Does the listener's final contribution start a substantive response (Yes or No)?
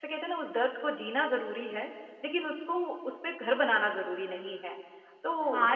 Yes